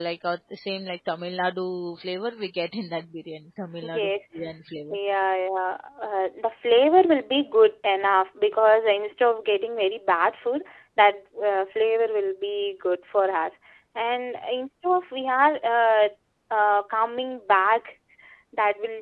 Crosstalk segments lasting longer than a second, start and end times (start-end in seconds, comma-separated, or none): none